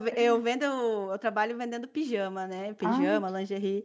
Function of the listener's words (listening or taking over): listening